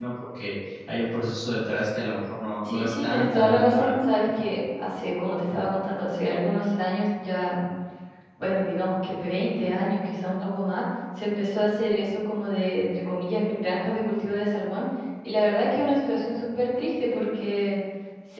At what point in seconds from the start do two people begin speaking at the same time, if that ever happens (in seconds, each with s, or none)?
2.6 s